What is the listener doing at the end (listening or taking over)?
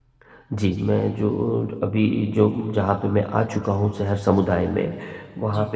listening